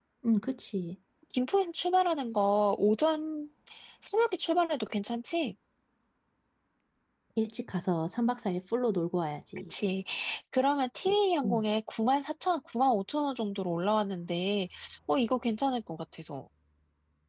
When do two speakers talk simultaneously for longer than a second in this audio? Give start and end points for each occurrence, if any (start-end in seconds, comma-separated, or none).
none